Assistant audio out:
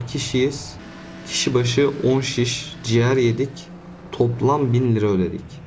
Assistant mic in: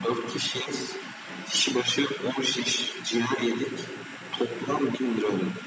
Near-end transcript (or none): none